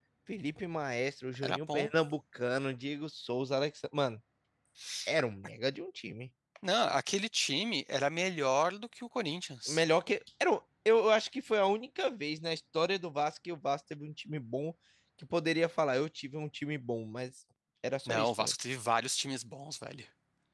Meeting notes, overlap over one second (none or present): none